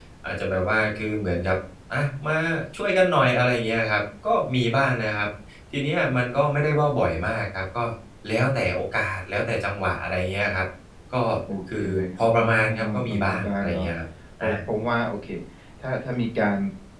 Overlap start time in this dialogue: 11.8 s

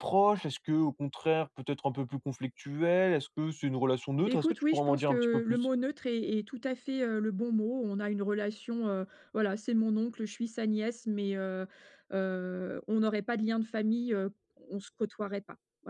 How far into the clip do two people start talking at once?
4.3 s

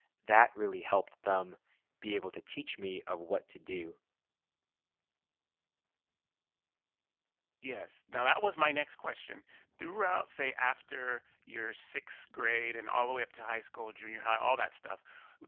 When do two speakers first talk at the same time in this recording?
none

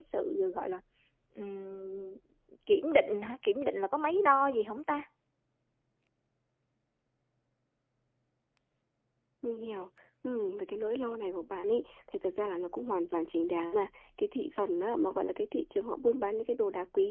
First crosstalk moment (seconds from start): none

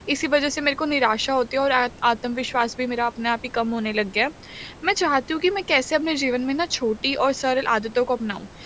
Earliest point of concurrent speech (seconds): none

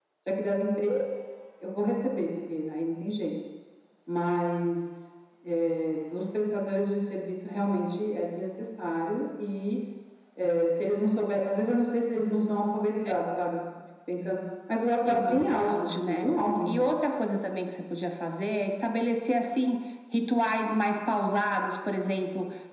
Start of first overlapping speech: 15.0 s

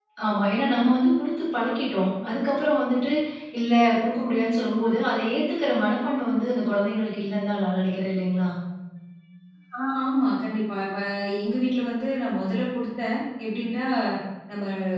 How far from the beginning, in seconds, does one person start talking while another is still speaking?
none

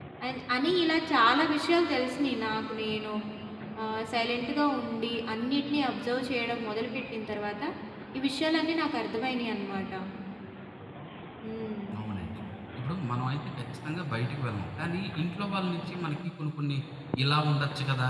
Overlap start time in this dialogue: none

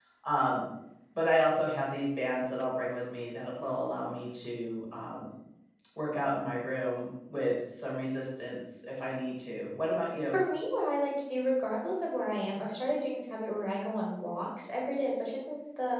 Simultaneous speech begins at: none

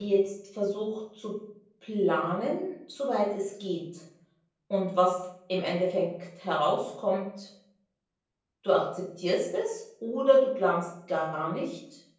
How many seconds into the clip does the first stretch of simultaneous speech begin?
none

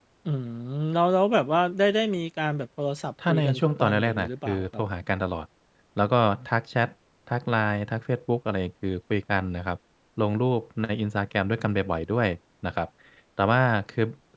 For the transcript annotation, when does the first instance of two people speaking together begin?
3.2 s

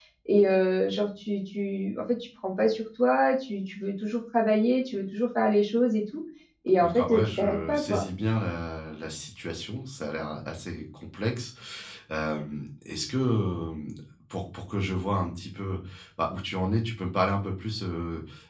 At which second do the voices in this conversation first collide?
6.8 s

